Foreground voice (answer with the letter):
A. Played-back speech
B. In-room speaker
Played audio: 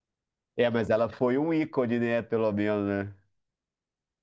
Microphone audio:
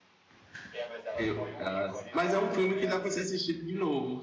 B